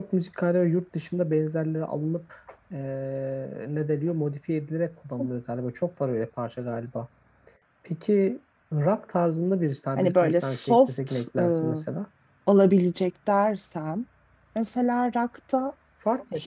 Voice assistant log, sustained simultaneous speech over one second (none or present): present